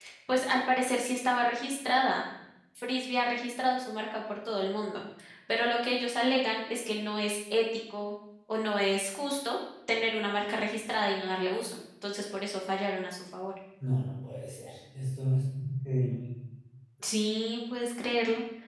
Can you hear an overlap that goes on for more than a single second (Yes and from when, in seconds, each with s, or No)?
No